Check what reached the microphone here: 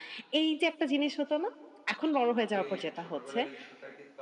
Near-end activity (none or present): present